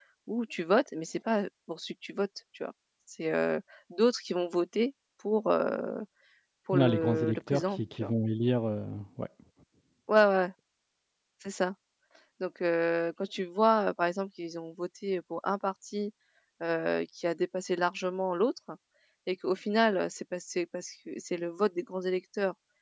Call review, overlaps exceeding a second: present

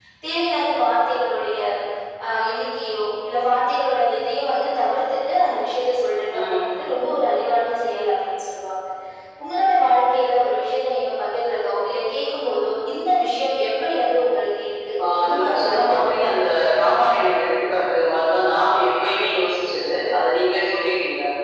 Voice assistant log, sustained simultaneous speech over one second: present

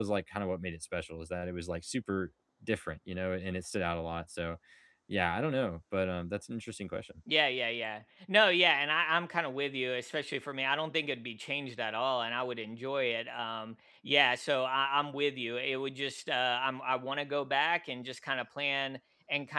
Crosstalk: none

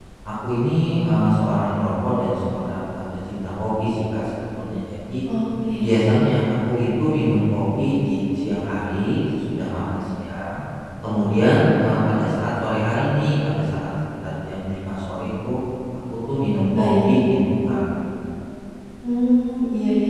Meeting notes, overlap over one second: none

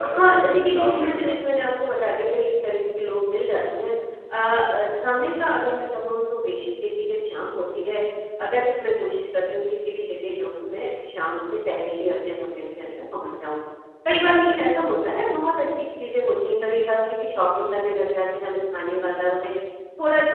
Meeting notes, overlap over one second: present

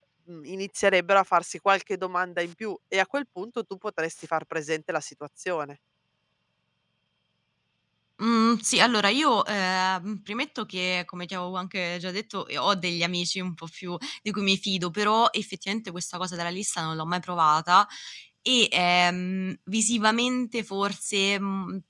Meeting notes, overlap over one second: none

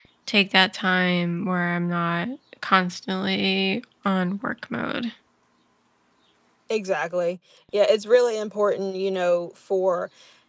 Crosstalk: none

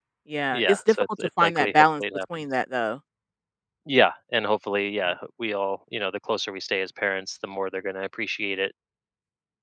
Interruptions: present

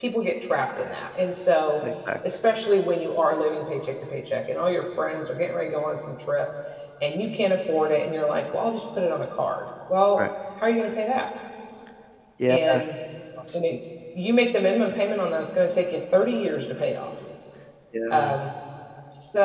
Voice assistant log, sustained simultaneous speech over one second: none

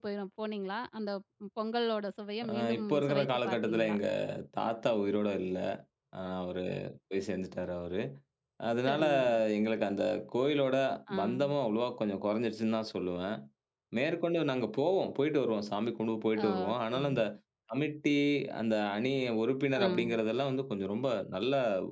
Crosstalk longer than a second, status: present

